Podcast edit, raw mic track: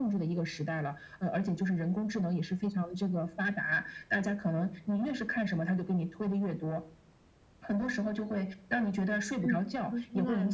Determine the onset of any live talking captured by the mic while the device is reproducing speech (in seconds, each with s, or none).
9.4 s